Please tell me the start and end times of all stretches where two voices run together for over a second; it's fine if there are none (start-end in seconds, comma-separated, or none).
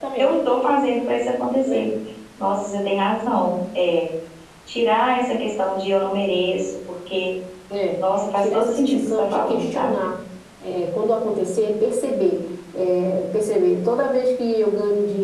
8.4-10.0